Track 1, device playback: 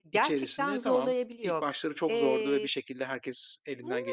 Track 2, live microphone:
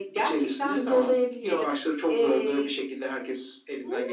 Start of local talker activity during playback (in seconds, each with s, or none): 1.4 s